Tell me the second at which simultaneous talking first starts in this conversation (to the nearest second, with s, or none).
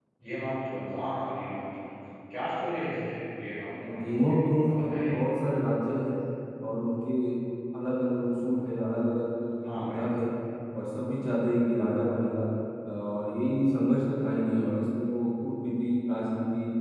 4 s